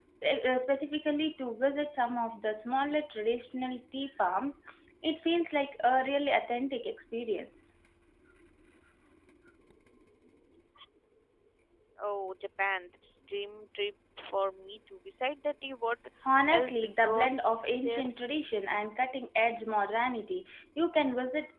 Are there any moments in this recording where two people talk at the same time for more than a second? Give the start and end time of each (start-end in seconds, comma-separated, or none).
16.5-18.1